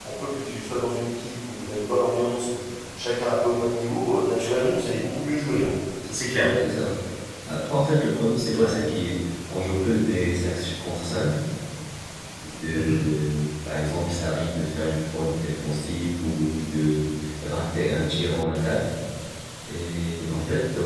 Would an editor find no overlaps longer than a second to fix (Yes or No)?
Yes